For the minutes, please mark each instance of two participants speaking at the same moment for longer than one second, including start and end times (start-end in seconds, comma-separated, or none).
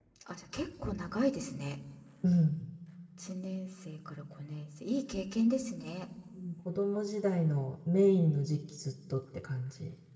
none